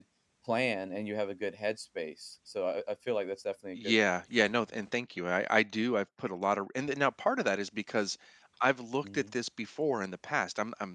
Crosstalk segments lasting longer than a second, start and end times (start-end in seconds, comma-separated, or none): none